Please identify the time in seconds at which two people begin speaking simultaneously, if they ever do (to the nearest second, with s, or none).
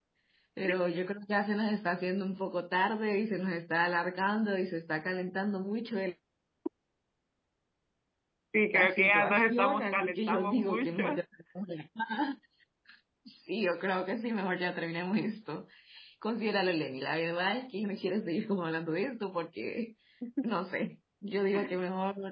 9 s